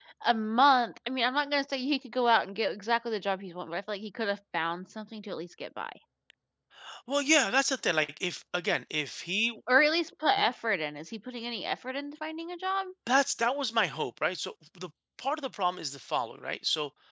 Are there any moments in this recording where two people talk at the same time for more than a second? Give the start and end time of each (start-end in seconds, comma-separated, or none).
none